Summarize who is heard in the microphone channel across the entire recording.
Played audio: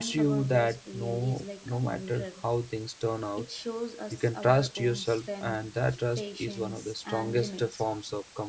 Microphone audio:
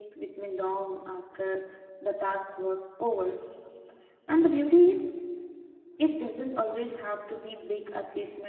user only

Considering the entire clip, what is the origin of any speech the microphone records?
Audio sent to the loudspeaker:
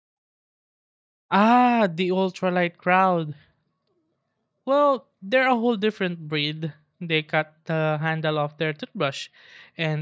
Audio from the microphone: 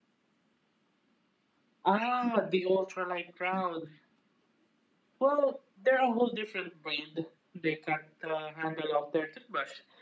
echo only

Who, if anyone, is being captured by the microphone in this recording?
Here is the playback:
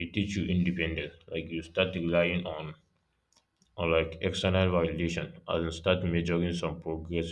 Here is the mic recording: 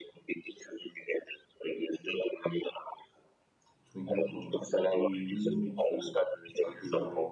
both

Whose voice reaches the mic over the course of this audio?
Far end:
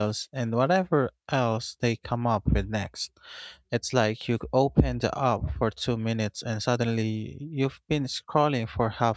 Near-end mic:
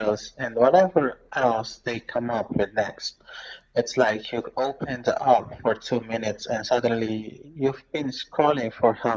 echo only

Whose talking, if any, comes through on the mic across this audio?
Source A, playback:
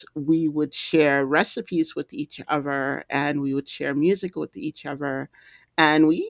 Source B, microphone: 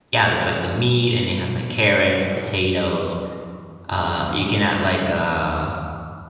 user only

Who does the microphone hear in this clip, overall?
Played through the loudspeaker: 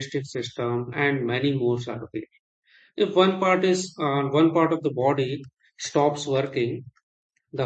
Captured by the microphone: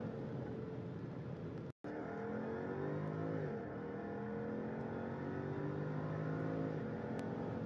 neither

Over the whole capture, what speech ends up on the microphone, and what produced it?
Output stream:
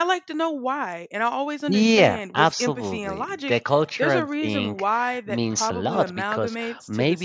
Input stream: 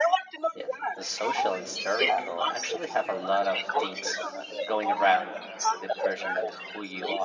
both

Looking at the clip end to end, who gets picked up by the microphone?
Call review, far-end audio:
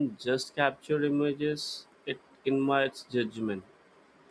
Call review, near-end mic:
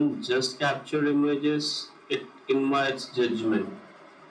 echo only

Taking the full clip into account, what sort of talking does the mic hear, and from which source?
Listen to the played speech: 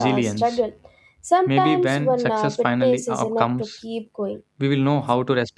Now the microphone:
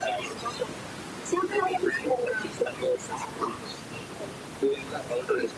echo only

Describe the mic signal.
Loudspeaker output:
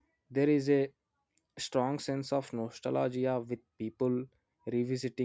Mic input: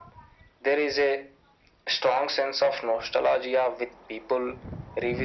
echo only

